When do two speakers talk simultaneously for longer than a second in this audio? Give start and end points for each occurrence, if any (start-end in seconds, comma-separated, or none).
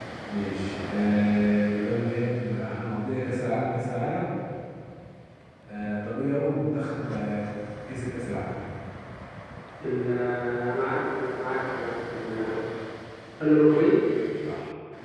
none